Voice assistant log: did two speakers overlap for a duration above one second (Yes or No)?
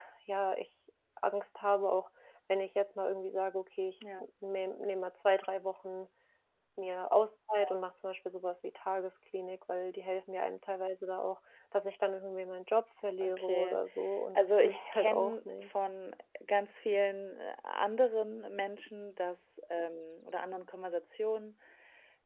Yes